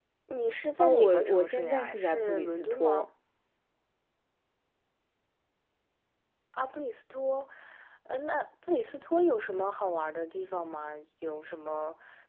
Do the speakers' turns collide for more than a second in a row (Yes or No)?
Yes